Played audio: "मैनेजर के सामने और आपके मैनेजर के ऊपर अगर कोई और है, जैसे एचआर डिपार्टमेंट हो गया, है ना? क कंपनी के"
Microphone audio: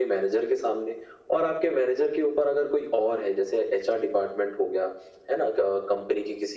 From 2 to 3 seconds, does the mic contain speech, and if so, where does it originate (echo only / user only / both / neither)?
echo only